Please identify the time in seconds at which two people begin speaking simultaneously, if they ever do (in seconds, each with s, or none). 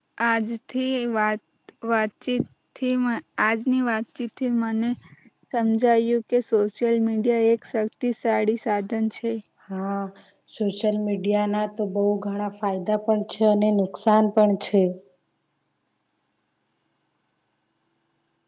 none